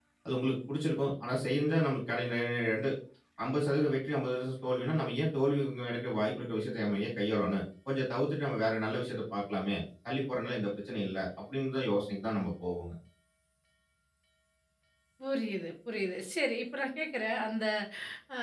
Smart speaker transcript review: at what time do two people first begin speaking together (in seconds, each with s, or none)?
none